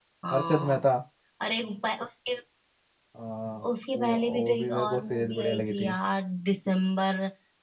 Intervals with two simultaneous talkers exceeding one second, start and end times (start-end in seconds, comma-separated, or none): 3.9-5.9